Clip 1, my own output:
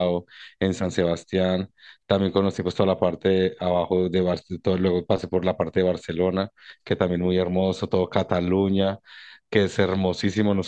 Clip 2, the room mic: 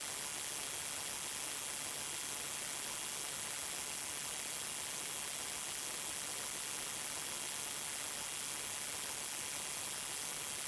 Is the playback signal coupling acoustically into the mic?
No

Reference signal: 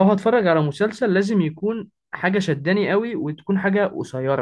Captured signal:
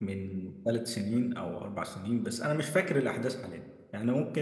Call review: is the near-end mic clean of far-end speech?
Yes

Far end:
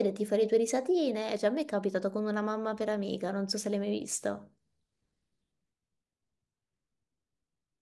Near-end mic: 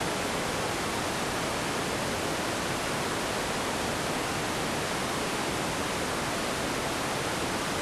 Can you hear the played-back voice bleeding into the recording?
No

